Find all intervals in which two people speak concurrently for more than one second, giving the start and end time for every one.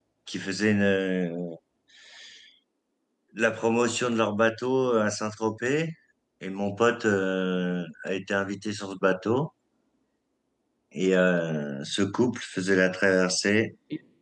none

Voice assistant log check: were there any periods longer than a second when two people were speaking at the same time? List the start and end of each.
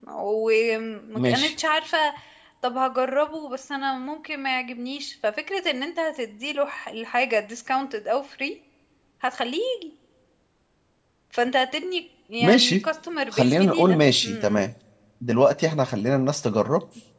13.3-14.6

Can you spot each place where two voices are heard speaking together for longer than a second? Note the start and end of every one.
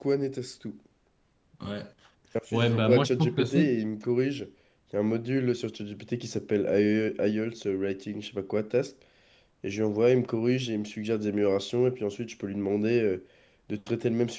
2.5-3.8

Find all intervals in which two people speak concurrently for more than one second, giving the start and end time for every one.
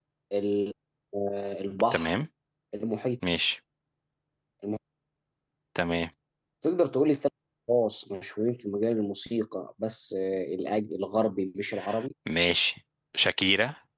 none

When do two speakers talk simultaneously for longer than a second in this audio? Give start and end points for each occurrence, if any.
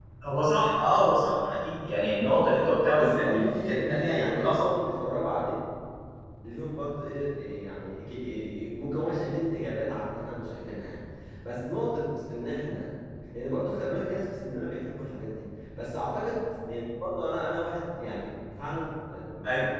2.9-4.7

